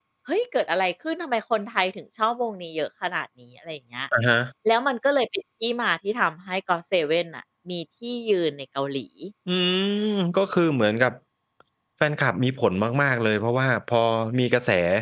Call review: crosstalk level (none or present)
none